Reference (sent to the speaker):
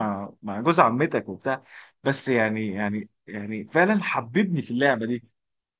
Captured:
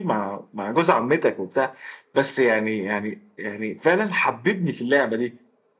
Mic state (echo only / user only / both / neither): echo only